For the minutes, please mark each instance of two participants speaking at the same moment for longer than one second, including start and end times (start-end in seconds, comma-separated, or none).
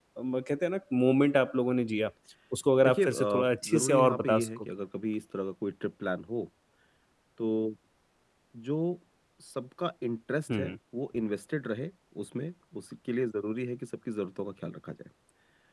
2.8-4.6